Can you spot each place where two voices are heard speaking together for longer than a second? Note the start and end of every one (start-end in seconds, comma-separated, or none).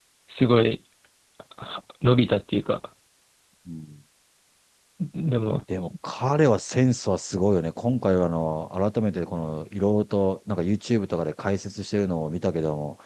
none